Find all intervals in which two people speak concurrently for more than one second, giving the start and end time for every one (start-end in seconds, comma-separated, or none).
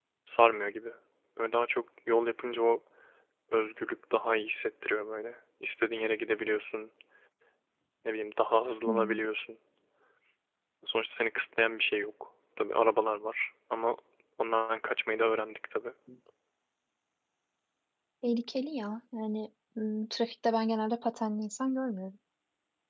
none